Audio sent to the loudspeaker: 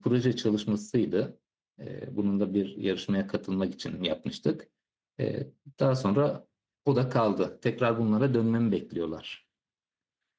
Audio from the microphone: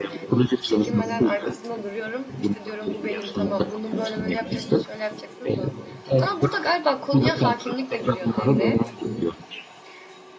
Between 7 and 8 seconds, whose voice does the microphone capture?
both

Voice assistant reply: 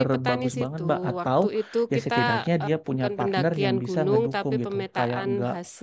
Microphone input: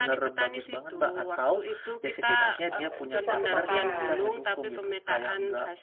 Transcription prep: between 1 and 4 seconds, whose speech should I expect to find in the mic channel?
both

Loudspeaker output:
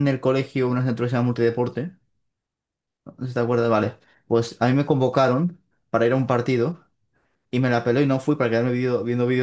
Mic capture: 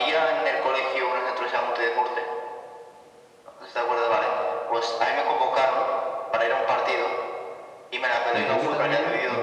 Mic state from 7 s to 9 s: both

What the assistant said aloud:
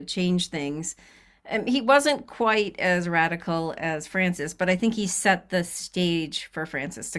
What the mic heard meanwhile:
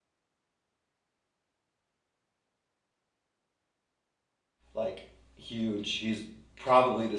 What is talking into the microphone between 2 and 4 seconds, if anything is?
neither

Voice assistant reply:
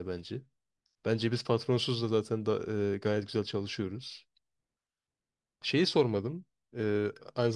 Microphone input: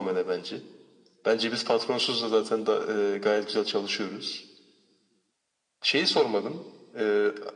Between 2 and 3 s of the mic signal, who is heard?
echo only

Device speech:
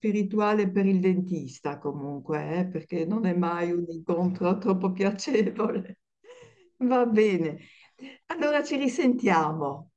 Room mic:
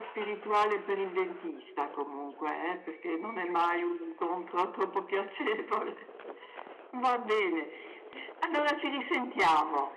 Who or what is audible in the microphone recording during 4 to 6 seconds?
echo only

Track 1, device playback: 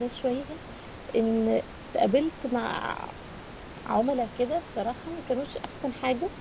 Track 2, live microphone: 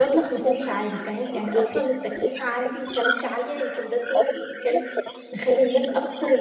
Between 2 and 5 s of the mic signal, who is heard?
both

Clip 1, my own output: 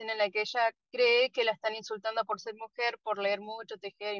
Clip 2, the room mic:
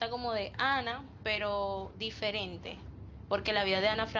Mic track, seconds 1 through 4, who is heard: user only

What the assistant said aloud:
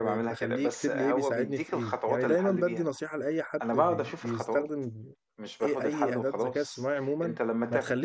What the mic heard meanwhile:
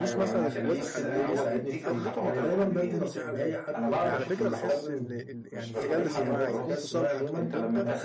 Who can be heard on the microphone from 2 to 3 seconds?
both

